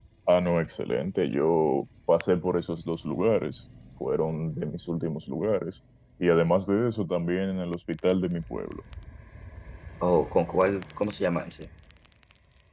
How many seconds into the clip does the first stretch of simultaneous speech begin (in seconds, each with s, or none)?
none